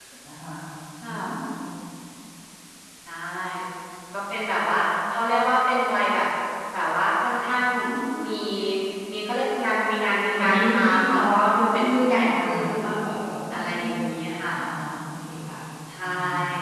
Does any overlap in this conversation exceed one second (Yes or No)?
Yes